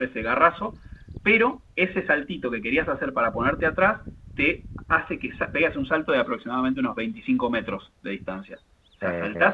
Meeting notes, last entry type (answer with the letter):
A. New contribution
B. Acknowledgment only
B